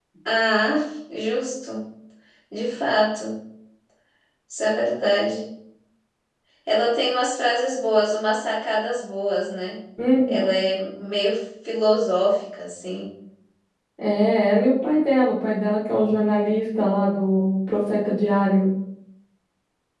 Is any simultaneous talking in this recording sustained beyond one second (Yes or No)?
No